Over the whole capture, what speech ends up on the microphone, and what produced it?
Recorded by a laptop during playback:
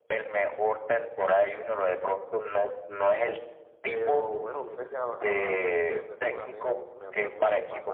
both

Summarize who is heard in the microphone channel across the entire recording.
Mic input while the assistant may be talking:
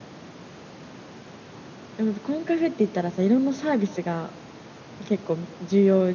user only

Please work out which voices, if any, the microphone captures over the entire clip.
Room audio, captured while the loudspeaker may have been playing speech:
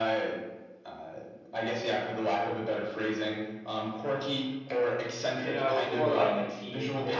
both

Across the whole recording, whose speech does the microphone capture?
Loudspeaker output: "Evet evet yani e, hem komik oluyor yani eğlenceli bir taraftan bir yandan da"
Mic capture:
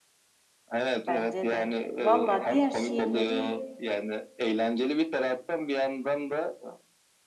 both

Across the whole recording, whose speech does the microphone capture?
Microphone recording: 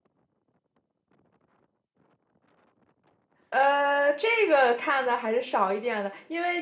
user only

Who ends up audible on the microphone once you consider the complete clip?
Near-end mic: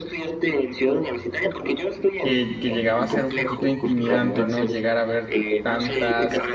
both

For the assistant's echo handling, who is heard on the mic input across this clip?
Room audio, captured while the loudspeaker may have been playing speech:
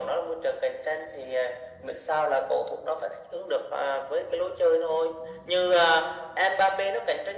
echo only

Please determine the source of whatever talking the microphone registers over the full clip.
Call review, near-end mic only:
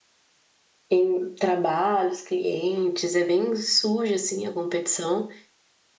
user only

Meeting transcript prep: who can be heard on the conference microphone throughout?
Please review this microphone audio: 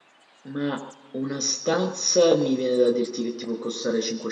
user only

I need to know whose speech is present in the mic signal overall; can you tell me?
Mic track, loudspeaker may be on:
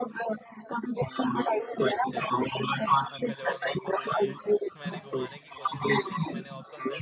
both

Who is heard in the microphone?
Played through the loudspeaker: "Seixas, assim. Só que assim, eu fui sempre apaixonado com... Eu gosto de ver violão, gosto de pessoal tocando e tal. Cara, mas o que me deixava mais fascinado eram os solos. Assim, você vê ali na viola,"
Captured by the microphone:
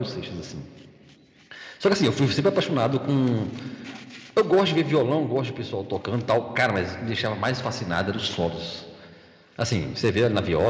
echo only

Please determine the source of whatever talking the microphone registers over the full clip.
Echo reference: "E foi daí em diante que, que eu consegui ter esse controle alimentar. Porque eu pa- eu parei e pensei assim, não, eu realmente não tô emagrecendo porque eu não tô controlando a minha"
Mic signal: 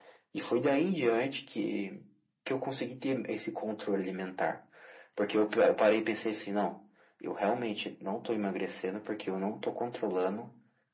echo only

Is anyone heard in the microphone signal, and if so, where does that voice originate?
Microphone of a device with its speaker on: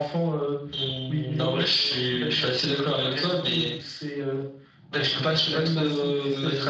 echo only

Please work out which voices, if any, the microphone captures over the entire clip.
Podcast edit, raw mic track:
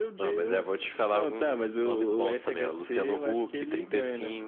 echo only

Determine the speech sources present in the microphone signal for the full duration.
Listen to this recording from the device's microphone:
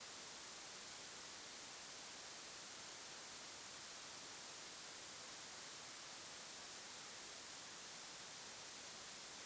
neither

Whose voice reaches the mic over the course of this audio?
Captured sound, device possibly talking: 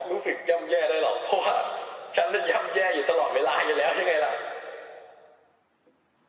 echo only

